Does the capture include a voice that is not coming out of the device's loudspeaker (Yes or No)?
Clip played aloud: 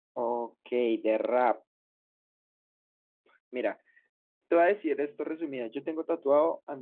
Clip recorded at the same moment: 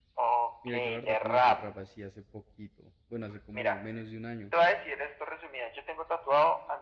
Yes